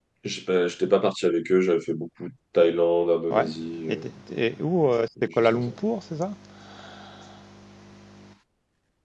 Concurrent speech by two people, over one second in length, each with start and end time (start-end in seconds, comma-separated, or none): none